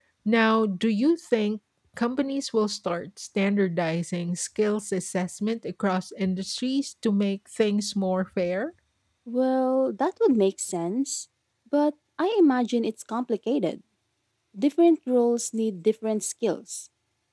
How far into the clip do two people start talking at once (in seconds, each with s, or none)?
none